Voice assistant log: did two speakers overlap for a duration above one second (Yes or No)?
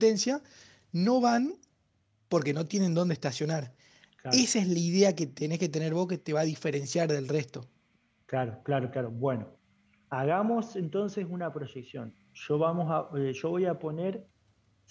No